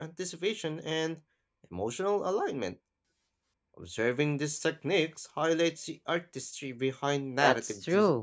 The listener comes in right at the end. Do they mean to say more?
Yes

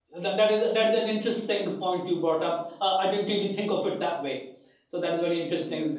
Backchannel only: Yes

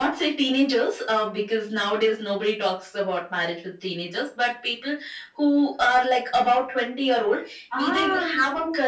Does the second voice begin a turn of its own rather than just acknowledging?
No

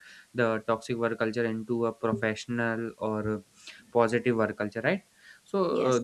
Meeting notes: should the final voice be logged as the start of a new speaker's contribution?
No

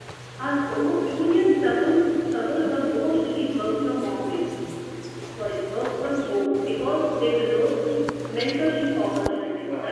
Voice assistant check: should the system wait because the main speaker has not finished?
No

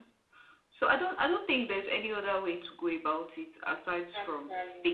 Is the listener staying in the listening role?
Yes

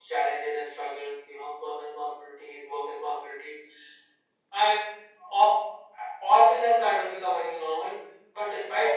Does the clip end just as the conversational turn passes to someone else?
No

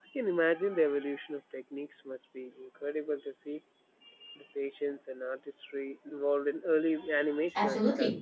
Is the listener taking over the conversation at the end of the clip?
Yes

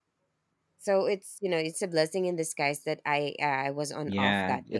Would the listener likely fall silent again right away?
No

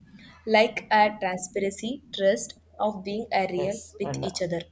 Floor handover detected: Yes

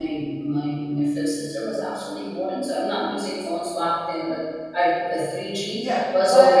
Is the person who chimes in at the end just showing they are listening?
No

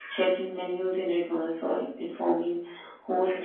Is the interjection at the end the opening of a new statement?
No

